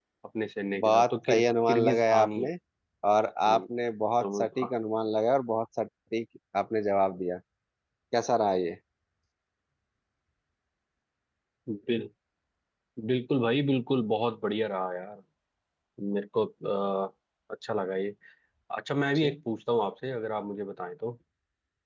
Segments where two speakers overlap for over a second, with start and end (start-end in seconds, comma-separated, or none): 0.8-2.5